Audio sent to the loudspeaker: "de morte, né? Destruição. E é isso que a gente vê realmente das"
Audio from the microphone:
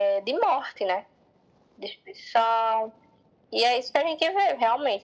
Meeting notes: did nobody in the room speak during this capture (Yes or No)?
Yes